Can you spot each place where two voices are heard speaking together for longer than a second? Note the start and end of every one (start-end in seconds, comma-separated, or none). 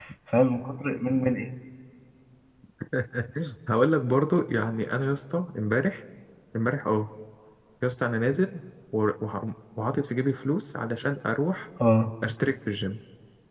none